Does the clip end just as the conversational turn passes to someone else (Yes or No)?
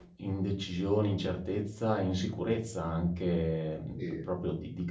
No